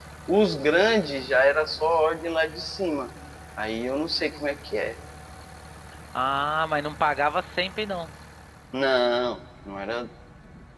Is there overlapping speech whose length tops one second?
No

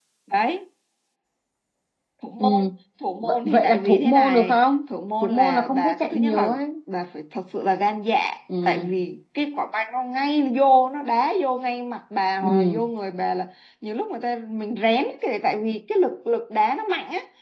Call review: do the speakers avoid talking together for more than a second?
No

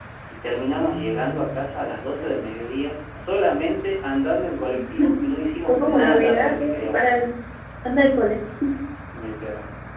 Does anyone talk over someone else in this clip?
Yes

